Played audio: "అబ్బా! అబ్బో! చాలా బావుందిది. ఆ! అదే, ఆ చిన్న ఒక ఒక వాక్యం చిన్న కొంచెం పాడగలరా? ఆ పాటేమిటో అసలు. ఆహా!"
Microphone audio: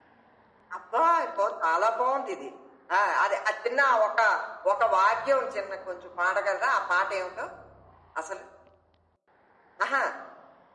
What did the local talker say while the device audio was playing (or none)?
none